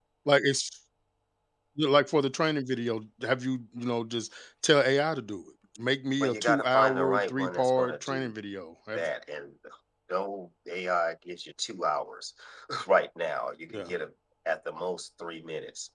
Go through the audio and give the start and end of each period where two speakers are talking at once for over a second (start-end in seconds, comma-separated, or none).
6.2-8.3